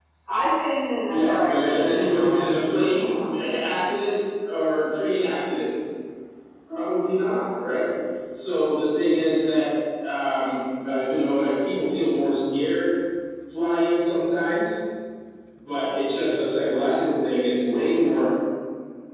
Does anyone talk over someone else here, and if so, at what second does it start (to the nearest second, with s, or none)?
1 s